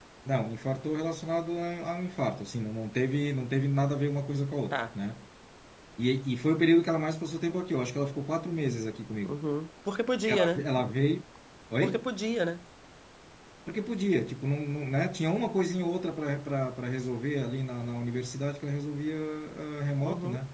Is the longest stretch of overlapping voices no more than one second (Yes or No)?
Yes